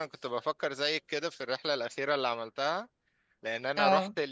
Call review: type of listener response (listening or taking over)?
listening